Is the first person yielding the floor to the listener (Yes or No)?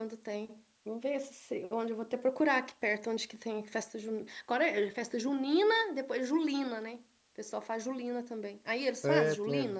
Yes